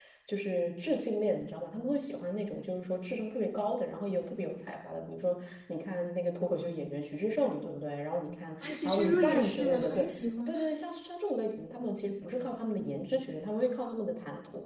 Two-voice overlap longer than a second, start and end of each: 8.6-10.0

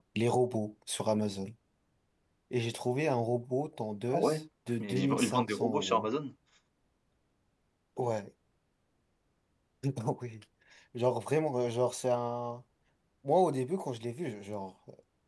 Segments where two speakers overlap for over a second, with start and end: 4.8-6.1

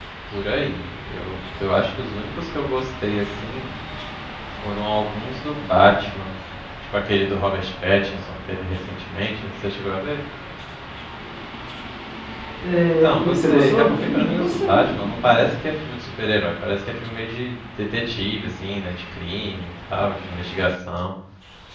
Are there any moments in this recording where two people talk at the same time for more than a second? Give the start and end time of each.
13.0-15.4

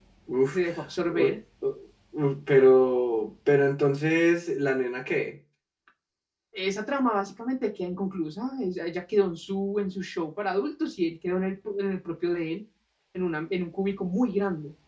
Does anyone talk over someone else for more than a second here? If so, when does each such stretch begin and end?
none

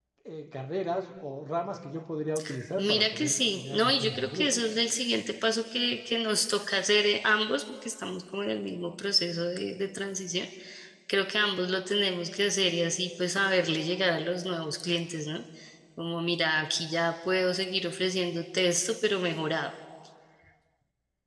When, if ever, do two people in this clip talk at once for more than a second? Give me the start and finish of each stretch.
2.8-4.5

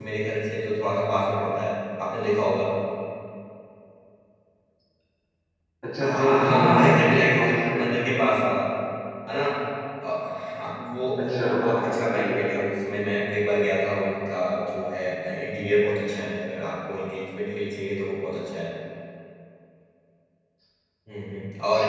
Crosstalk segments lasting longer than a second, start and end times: 6.0-8.3, 11.2-12.4

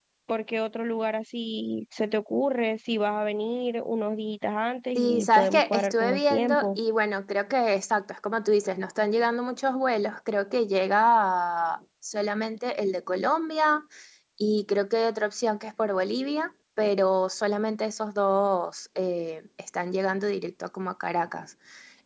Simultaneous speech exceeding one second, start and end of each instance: 5.0-6.8

